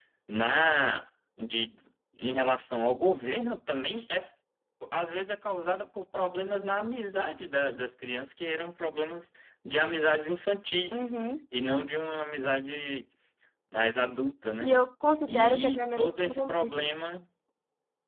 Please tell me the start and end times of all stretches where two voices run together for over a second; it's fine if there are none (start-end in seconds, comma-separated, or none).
15.3-16.8